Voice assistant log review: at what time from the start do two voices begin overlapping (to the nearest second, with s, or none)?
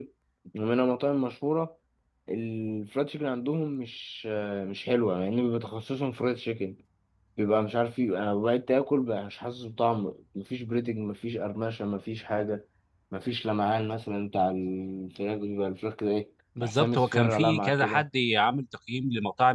17 s